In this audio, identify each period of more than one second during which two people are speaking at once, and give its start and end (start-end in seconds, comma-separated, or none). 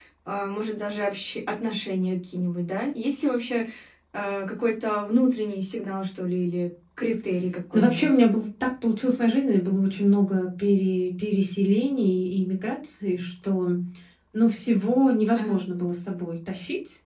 none